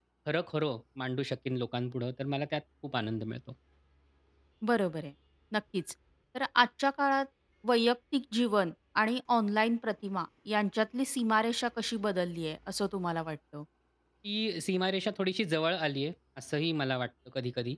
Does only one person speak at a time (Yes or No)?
Yes